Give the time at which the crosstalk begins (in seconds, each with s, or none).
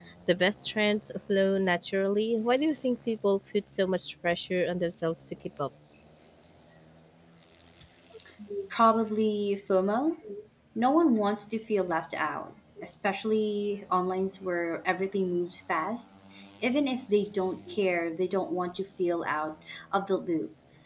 none